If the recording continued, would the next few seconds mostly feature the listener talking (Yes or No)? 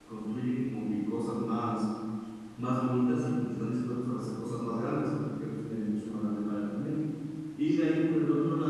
No